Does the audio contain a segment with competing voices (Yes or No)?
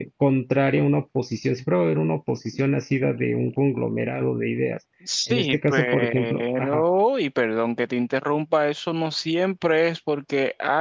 Yes